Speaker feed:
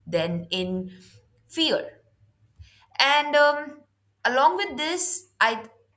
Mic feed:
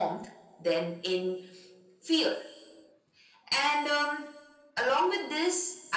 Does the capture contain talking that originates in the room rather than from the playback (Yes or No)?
No